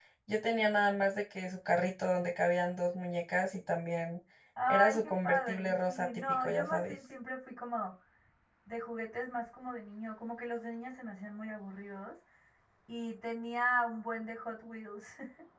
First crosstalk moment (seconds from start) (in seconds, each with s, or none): 4.7 s